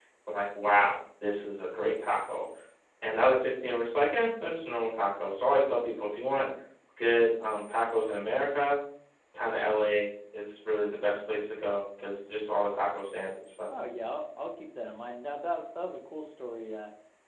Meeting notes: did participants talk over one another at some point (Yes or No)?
No